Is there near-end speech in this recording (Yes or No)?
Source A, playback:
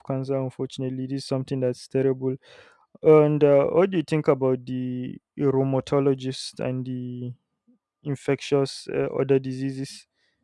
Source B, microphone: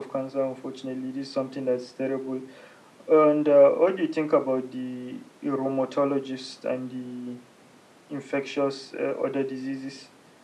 No